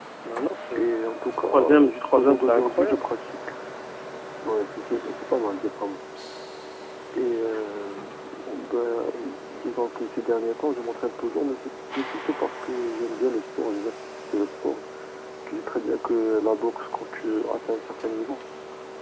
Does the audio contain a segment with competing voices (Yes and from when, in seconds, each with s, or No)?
Yes, from 1.5 s